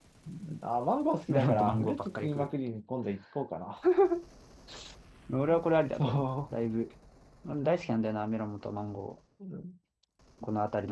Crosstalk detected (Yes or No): Yes